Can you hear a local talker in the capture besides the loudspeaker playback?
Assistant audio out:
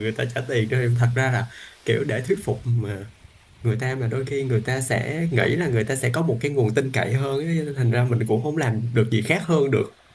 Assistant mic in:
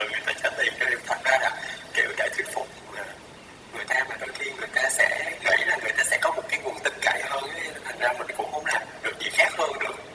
No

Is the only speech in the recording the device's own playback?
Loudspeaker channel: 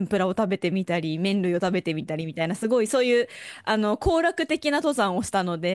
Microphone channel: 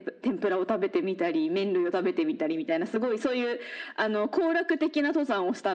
Yes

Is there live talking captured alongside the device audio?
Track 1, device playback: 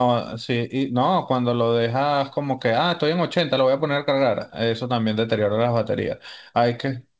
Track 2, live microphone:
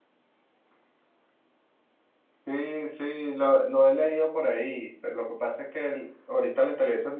Yes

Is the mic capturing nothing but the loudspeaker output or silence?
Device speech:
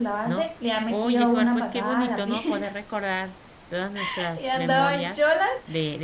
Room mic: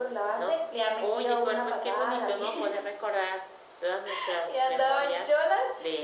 Yes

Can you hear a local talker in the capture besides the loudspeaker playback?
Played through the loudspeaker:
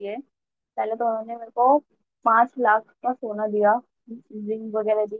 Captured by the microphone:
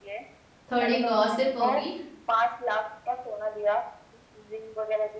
Yes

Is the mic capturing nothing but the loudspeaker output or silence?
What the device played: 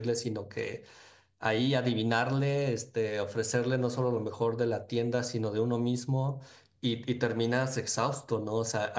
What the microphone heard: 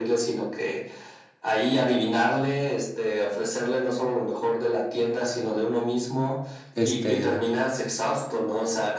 No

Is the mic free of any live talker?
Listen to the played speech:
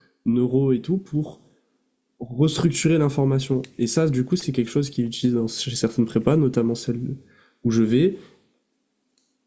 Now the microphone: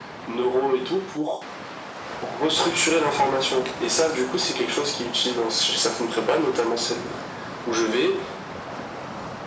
Yes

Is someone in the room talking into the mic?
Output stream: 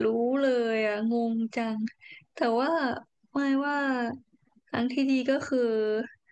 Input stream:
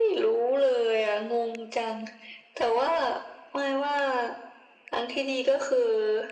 No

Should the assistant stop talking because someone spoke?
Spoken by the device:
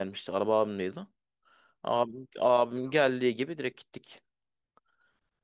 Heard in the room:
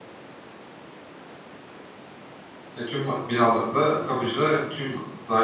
Yes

